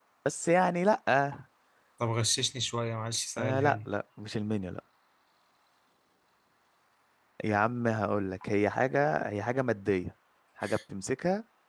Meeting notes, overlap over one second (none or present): none